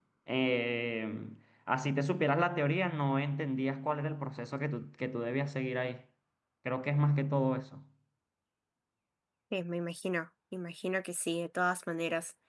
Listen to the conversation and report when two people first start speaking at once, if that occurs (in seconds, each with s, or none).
none